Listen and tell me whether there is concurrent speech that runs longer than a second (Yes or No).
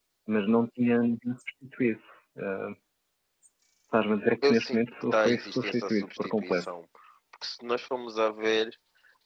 Yes